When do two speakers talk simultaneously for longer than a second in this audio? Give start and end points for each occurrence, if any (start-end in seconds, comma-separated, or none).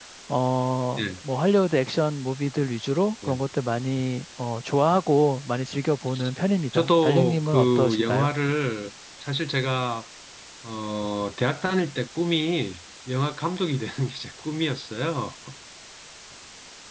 6.7-8.3